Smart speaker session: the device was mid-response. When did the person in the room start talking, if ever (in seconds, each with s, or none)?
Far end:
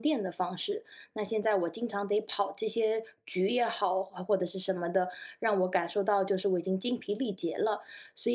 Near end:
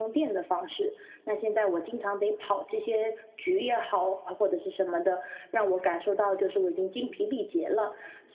none